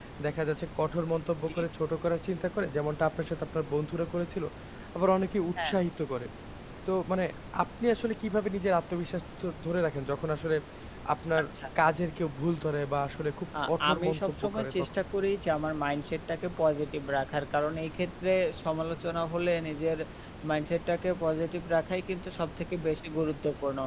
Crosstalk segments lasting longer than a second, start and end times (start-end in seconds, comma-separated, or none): 13.6-14.9